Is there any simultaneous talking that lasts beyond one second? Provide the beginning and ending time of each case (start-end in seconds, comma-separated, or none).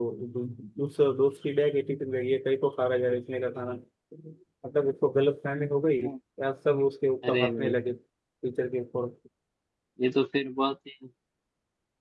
none